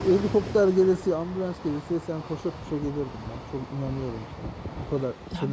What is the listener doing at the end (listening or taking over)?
taking over